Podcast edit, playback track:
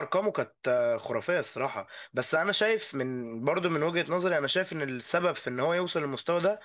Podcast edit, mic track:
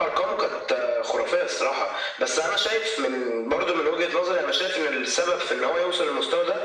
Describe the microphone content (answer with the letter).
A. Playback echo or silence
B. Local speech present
A